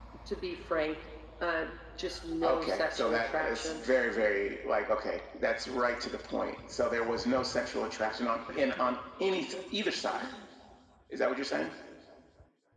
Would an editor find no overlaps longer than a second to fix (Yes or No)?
No